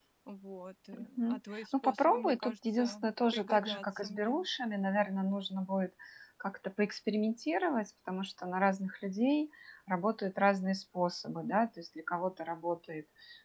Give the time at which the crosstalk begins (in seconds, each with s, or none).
0.9 s